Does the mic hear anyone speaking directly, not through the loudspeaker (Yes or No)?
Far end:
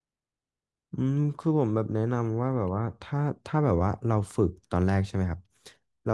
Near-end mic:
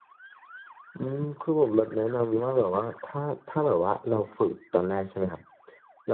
No